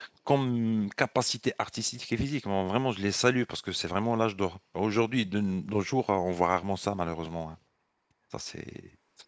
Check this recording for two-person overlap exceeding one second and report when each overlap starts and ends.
none

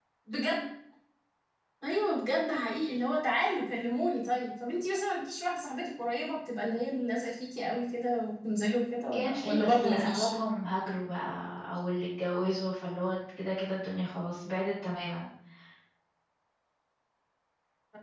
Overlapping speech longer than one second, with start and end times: 9.1-10.3

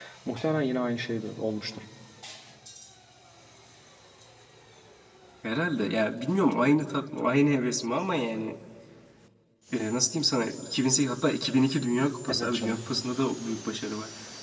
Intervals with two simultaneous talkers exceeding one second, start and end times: none

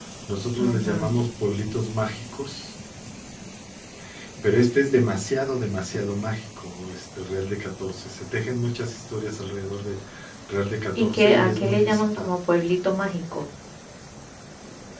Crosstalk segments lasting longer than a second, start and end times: 10.9-12.3

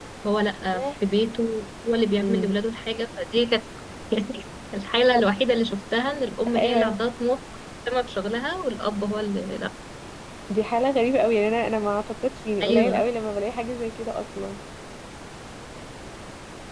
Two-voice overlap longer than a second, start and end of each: none

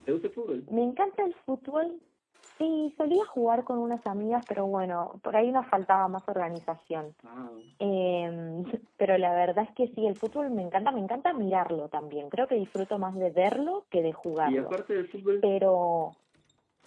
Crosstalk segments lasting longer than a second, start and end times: none

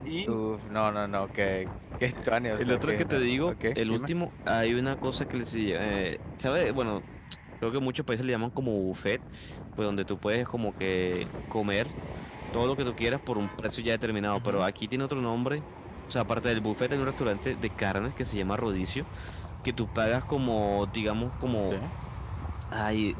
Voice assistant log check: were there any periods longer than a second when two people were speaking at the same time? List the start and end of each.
2.6-4.1

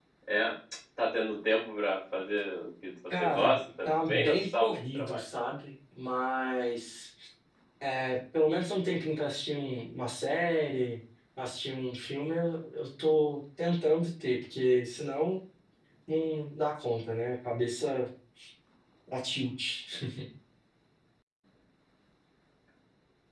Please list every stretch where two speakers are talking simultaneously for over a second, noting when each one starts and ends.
3.2-5.2

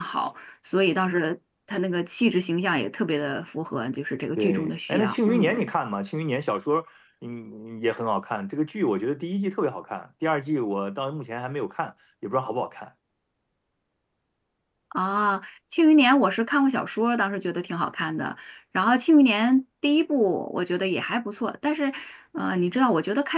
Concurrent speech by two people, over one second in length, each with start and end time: 4.4-5.7

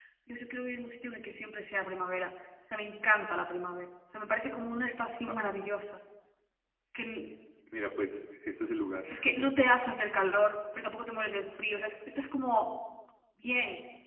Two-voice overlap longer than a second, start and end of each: none

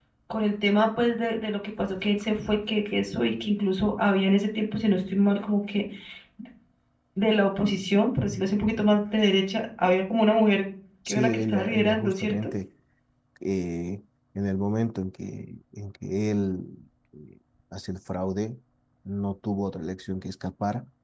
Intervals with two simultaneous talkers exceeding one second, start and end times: 11.1-12.5

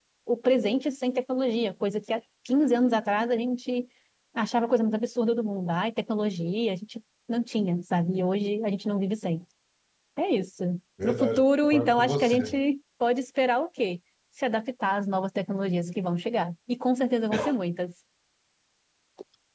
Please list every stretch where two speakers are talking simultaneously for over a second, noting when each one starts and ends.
11.0-12.6

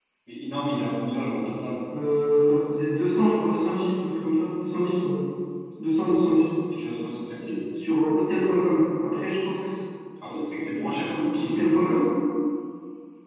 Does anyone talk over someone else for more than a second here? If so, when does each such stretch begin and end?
none

